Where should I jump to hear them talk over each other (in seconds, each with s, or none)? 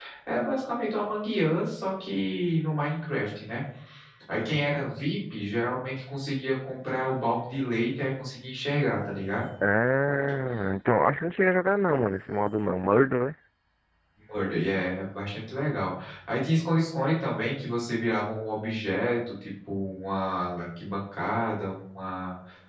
none